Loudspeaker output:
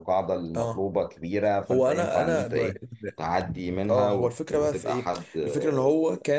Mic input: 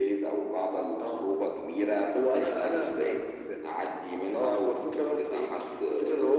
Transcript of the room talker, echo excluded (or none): none